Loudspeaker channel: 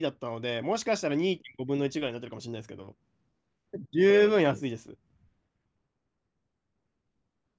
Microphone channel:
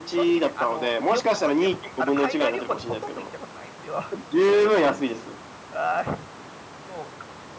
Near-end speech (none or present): present